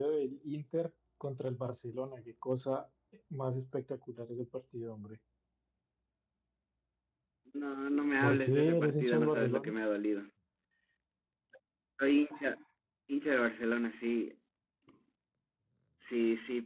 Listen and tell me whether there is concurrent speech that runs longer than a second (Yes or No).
Yes